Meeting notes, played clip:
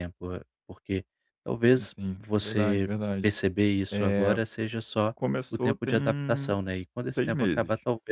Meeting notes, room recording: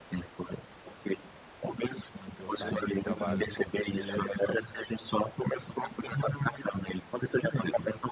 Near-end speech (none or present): present